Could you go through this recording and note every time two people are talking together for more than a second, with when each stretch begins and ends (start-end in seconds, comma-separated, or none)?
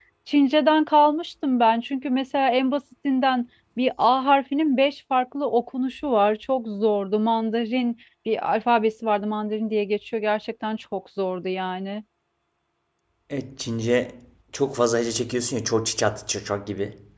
none